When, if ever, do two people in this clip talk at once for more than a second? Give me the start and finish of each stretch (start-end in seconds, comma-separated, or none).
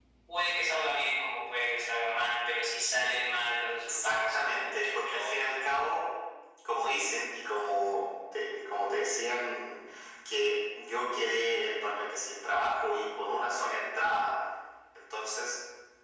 3.9-5.6